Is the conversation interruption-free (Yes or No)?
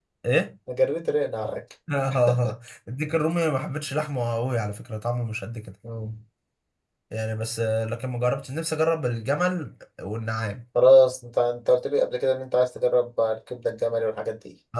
Yes